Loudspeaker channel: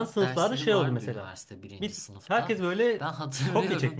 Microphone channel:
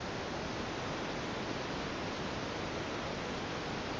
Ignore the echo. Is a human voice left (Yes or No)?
No